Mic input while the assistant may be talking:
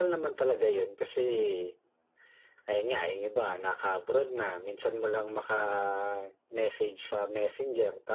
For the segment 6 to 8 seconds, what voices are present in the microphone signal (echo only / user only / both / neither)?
echo only